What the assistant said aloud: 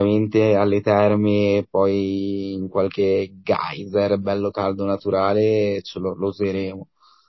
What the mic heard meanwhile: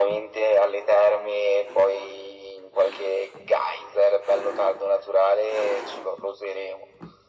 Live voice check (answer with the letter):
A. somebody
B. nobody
B